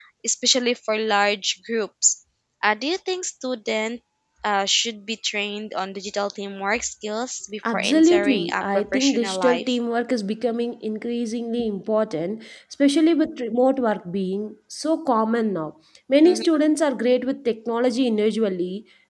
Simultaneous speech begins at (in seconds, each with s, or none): 7.6 s